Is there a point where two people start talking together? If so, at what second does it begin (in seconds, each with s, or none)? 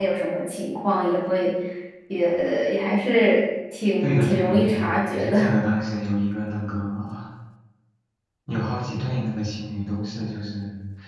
4.0 s